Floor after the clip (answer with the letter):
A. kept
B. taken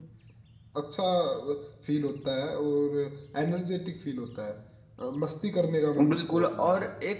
B